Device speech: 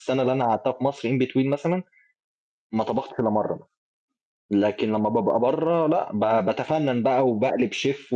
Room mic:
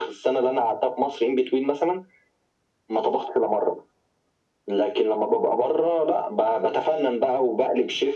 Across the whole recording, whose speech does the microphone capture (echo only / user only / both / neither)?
echo only